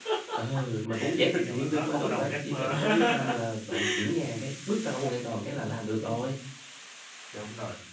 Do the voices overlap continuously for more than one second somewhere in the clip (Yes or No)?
Yes